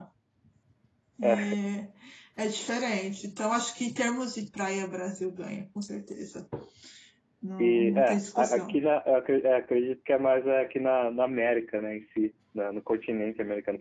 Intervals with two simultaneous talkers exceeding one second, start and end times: 7.6-8.8

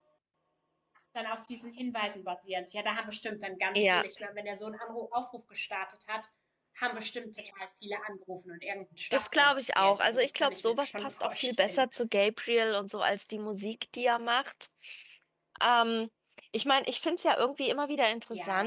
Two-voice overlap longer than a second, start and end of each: 9.1-11.9

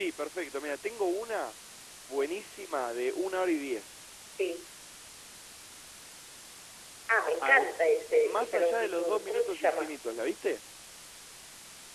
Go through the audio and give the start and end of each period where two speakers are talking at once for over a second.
8.2-10.0

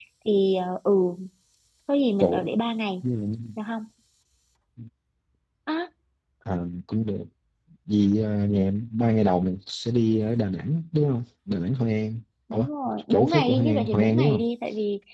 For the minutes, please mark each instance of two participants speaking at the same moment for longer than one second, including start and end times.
13.1-14.4

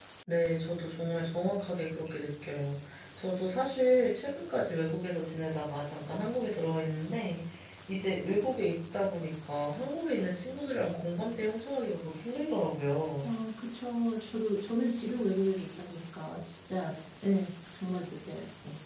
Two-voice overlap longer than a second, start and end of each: none

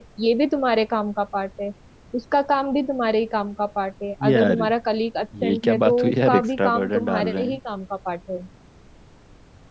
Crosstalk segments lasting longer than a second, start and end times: 5.4-7.6

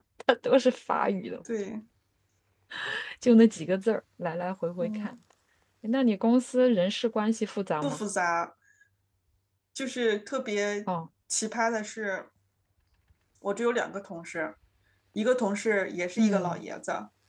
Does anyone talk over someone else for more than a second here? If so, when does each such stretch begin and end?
none

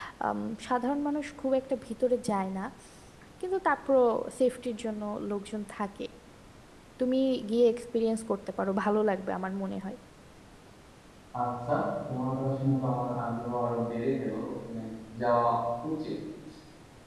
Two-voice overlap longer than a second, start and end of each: none

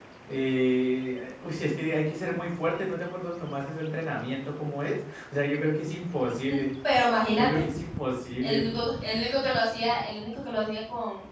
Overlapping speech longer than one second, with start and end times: none

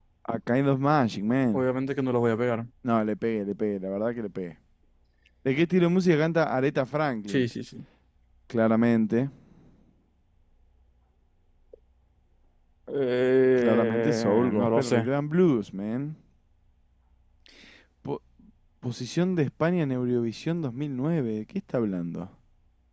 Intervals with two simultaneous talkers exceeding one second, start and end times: 13.6-15.1

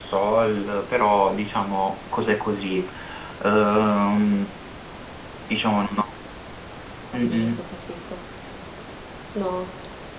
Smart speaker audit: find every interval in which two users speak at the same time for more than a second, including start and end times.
none

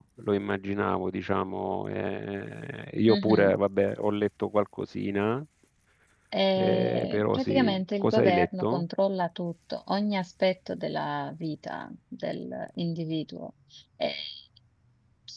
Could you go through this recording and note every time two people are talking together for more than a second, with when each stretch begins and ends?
6.6-8.8

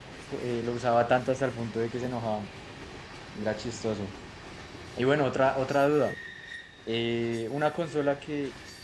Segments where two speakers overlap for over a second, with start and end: none

